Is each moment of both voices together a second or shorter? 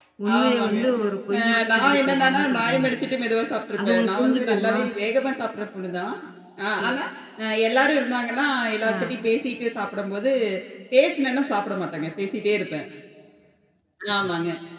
No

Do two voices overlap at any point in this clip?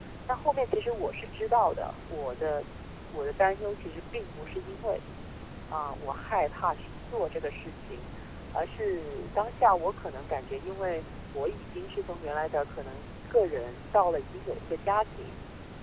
No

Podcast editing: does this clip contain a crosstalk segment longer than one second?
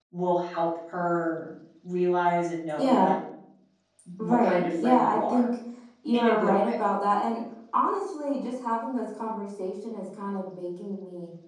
Yes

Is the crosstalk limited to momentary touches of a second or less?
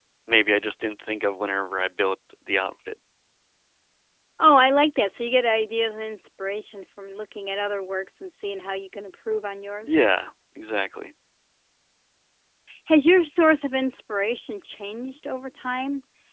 Yes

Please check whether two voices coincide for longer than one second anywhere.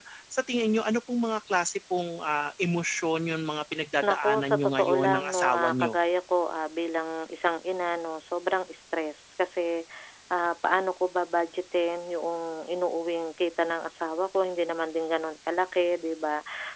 Yes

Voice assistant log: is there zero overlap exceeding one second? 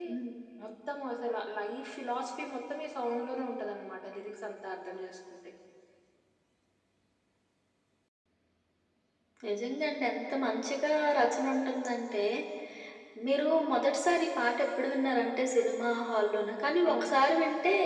Yes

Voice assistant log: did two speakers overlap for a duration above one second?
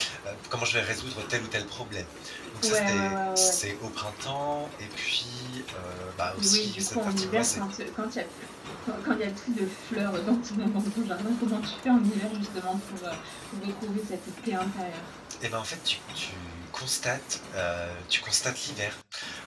Yes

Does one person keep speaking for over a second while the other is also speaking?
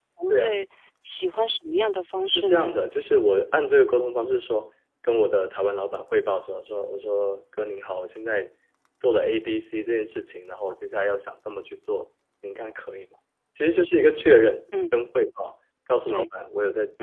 No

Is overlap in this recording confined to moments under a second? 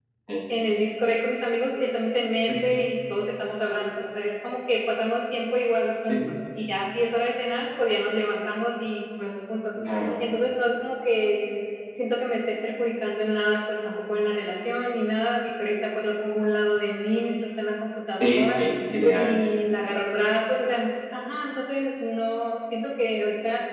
Yes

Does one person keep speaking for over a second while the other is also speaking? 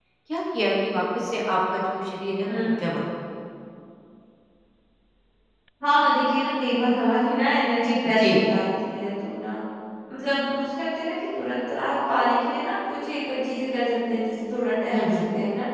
No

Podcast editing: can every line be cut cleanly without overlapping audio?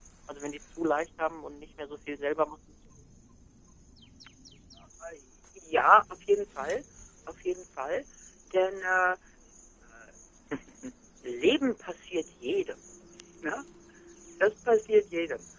Yes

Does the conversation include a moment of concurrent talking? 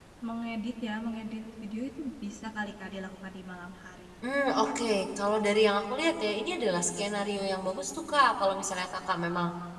No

